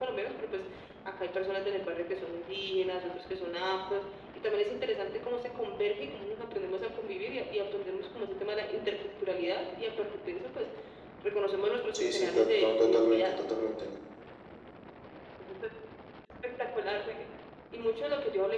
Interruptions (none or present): present